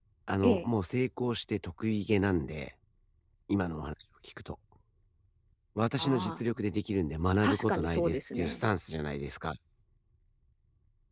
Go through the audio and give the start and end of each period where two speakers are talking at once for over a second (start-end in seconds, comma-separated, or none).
7.4-8.6